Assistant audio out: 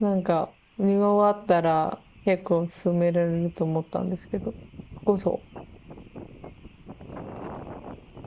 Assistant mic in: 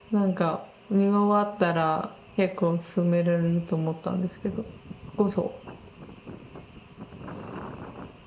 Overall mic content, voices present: echo only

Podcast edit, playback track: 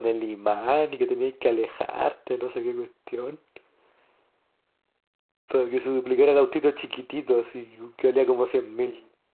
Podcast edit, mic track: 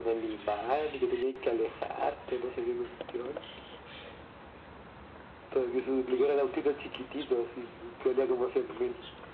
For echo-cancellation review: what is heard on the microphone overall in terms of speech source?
echo only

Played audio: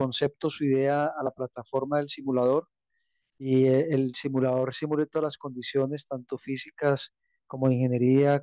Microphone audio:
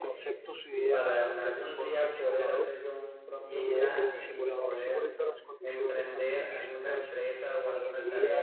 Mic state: both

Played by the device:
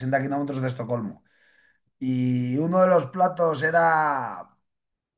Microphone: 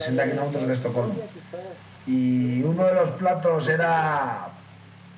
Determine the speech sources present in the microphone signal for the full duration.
both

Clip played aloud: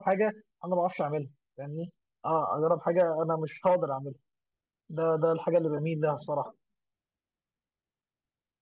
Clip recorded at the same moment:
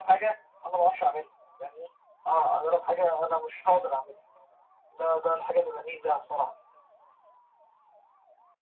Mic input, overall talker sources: echo only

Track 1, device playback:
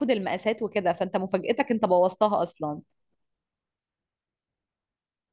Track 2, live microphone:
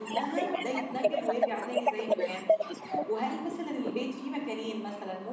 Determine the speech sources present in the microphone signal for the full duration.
both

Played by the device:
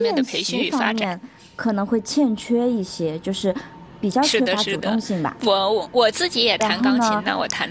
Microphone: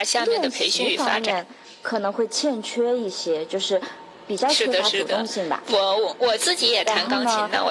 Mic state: echo only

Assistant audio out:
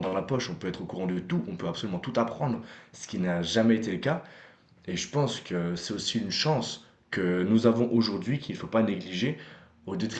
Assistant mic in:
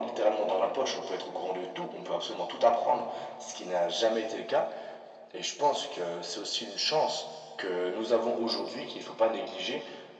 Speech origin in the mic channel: echo only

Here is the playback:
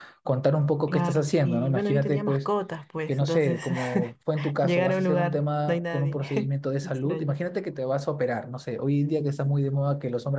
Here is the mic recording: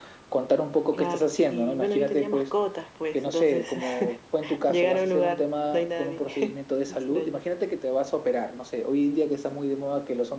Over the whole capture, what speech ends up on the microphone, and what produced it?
echo only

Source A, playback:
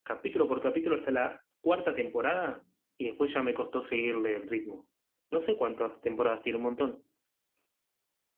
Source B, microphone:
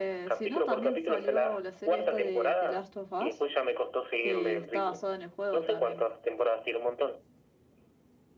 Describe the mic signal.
both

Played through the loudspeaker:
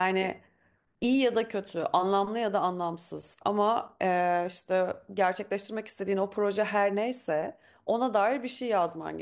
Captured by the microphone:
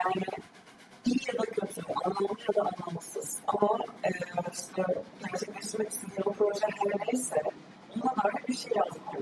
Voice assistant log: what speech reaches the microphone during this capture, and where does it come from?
echo only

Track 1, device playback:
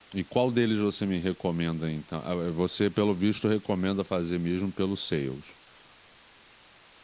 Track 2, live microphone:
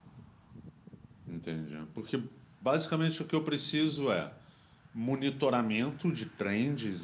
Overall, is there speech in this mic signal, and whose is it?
user only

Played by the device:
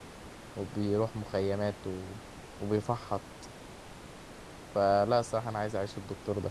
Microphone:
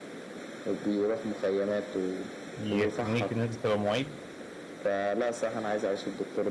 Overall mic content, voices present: both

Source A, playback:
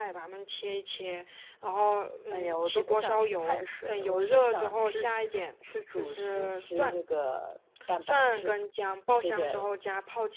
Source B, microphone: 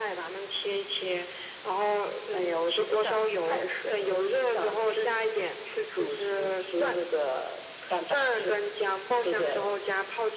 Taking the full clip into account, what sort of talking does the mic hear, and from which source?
echo only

